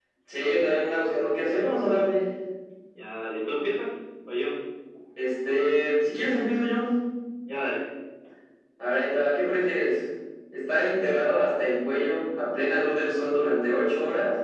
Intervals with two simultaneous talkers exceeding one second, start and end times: none

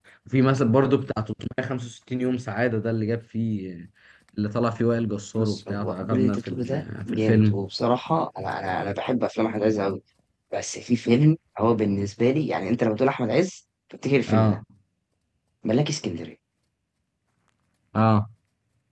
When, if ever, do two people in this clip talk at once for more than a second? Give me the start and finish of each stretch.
5.4-7.6

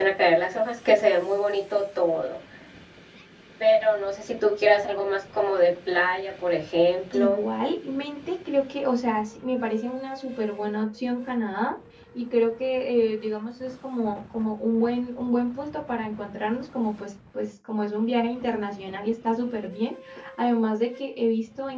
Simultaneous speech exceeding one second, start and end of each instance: none

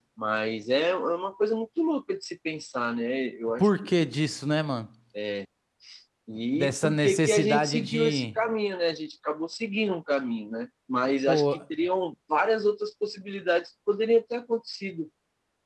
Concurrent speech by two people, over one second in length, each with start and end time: 6.5-8.4

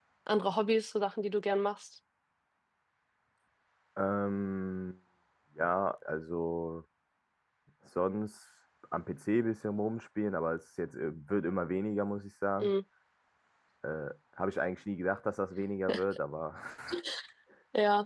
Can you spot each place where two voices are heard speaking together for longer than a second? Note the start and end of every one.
none

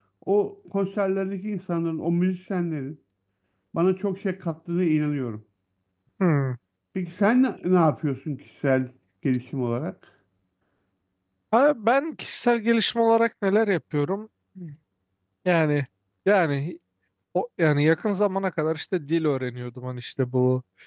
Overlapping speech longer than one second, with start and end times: none

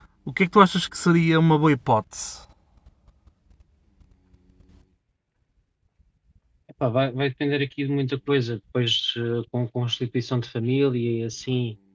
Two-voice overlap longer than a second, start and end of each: none

